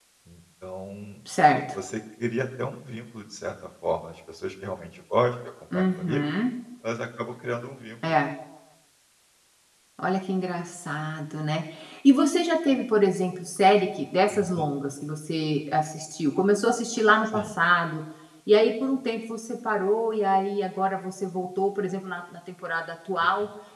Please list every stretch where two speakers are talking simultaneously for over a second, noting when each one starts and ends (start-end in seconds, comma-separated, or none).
none